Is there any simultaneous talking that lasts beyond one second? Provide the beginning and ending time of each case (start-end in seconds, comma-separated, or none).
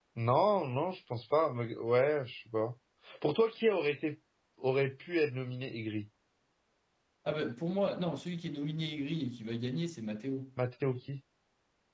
none